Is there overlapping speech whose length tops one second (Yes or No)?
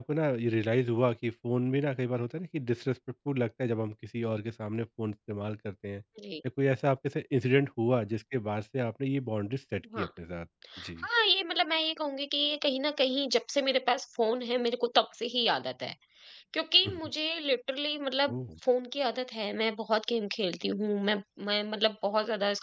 No